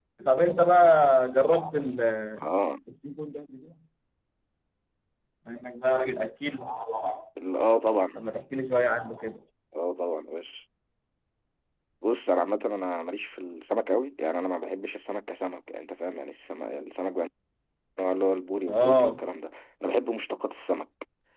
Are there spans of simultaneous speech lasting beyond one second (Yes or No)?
No